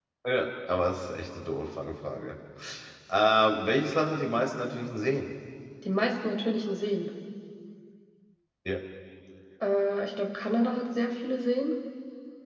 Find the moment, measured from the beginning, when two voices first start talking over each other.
none

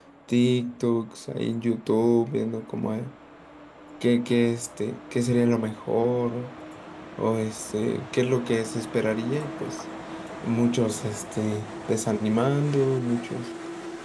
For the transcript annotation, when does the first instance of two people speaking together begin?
none

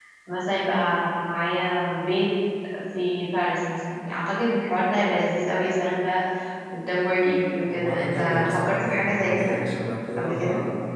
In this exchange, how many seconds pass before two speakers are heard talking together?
8 s

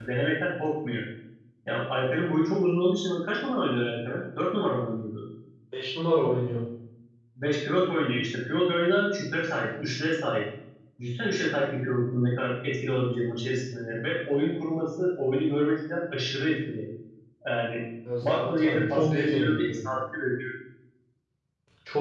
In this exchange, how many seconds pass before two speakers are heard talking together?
18 s

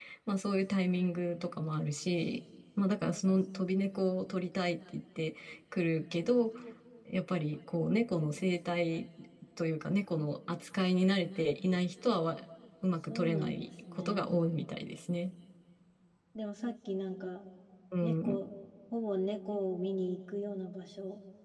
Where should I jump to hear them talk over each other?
13 s

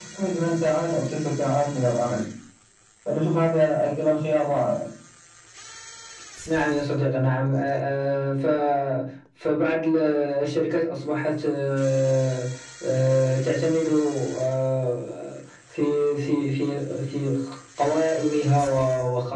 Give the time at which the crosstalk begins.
none

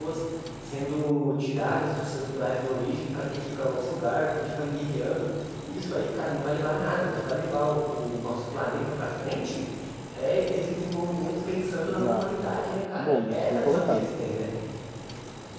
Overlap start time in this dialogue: 12 s

